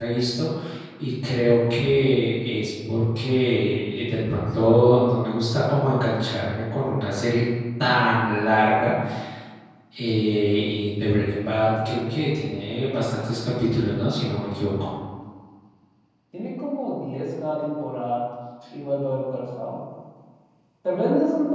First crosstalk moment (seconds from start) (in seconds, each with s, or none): none